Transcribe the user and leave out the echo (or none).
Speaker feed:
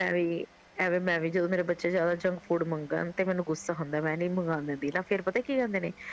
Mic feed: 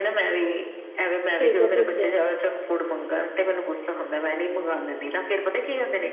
ਠੀਕ ਐ ਠੀਕ ਐ।